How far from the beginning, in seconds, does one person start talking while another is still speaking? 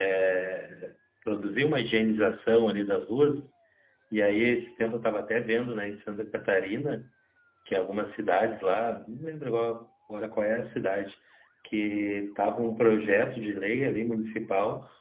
none

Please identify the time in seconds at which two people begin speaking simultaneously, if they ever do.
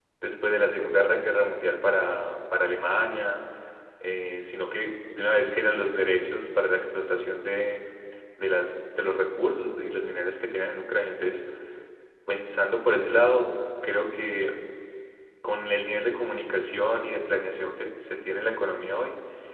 none

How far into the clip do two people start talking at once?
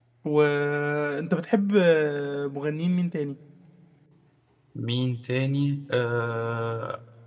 none

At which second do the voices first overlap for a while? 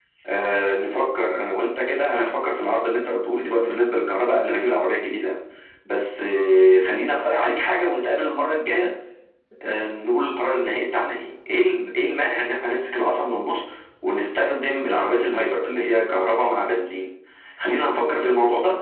none

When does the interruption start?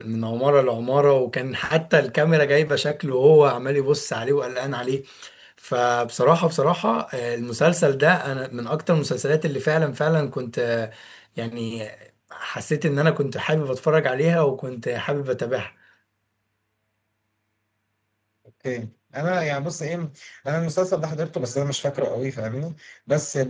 none

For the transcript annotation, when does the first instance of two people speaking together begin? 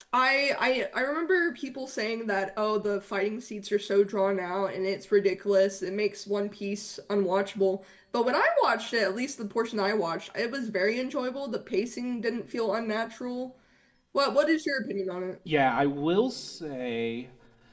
none

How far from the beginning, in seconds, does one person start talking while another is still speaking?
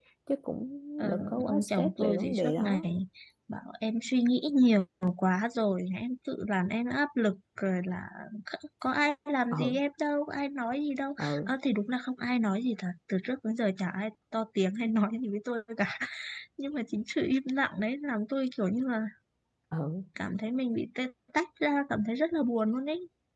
1 s

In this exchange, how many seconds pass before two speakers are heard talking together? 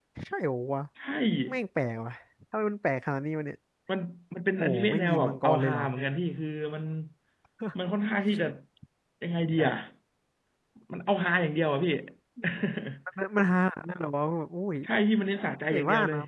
5 s

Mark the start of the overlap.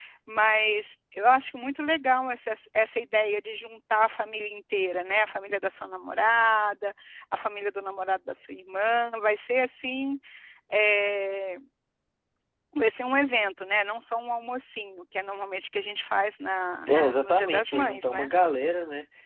17 s

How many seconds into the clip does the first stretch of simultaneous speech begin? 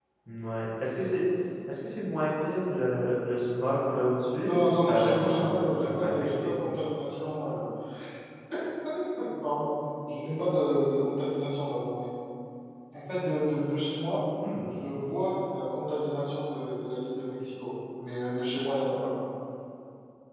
4 s

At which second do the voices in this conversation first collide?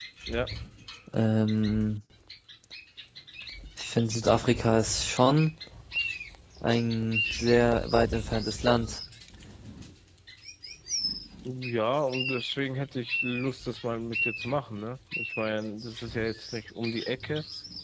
none

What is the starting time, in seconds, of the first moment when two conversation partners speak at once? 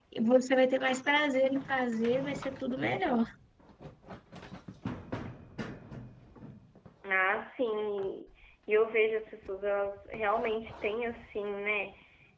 none

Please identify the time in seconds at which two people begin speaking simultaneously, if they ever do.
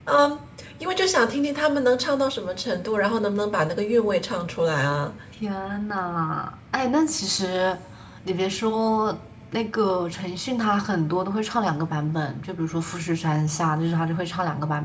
none

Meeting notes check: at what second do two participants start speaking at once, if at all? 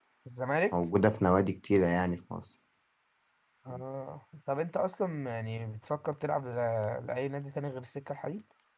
none

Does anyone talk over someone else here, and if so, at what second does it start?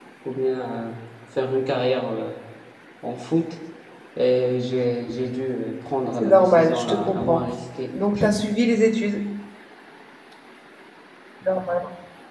6 s

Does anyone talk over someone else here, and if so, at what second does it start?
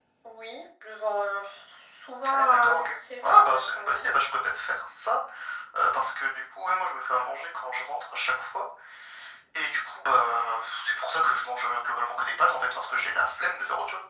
2 s

